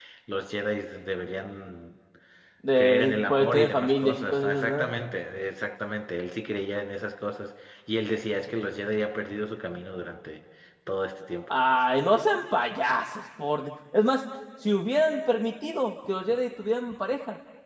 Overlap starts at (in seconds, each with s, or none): 2.8 s